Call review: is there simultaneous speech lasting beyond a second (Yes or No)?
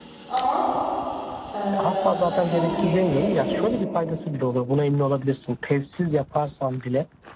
Yes